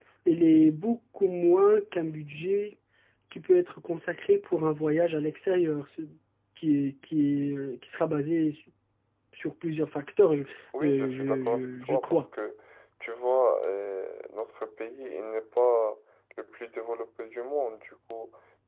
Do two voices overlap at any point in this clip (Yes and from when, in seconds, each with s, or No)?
Yes, from 10.8 s